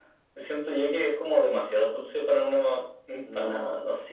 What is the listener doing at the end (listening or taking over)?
taking over